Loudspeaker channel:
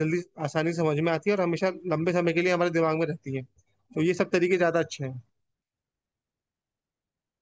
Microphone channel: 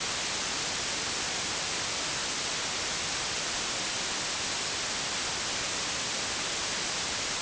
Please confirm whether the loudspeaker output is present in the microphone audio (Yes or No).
No